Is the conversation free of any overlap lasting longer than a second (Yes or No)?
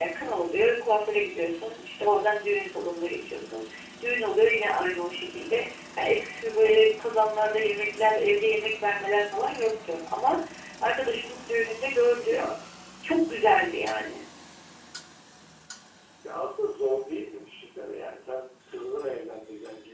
Yes